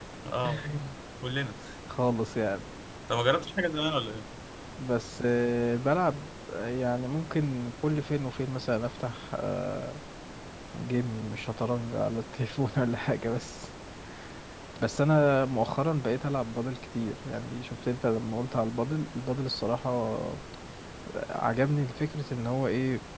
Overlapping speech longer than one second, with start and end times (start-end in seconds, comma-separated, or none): none